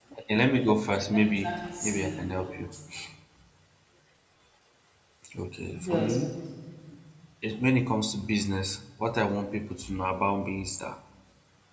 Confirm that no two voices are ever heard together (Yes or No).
No